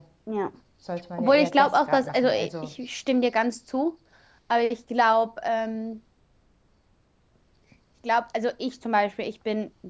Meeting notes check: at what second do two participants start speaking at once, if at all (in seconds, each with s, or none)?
1.2 s